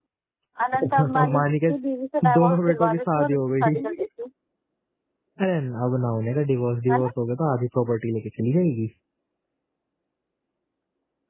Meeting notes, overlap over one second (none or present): present